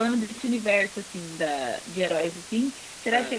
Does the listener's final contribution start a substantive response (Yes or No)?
No